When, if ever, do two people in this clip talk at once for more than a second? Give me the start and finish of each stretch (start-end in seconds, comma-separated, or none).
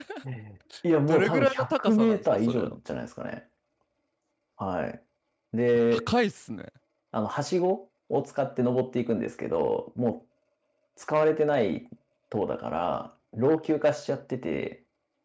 1.1-2.8